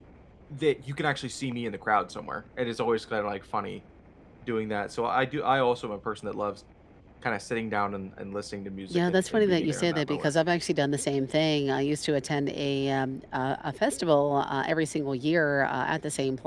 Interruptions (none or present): present